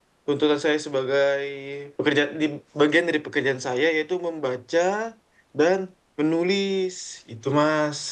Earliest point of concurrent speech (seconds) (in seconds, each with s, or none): none